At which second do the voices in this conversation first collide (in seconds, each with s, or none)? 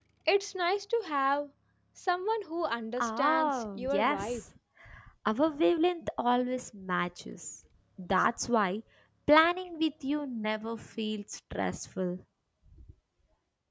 3.0 s